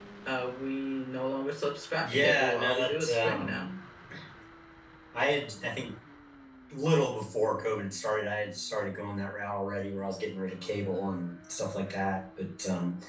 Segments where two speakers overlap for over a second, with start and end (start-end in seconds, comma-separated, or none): 2.0-3.6